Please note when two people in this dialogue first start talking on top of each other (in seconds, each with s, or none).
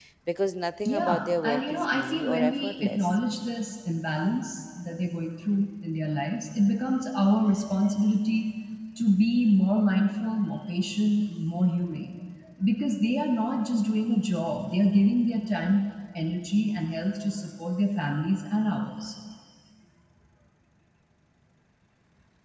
0.8 s